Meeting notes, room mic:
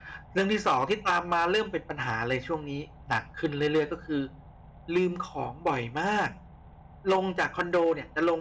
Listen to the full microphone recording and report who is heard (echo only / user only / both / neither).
user only